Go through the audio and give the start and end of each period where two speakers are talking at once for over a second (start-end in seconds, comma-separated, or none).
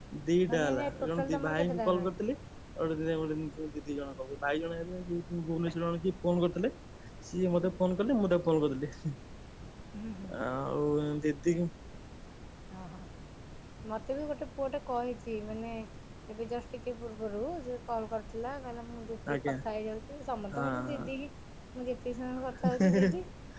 0.5-2.1